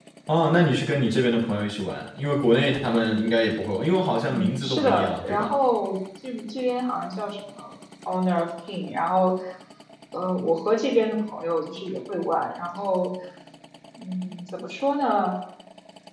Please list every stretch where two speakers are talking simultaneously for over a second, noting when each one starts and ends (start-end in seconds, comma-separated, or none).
4.2-5.5